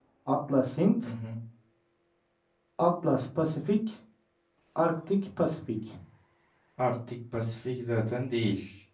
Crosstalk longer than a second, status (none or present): none